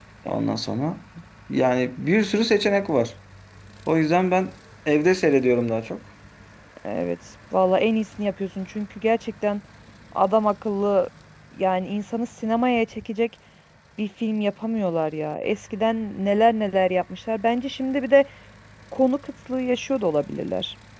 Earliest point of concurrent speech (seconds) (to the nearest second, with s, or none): none